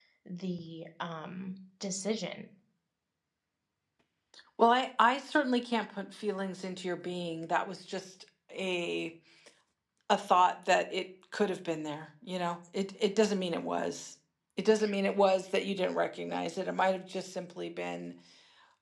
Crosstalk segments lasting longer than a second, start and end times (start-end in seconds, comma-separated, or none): none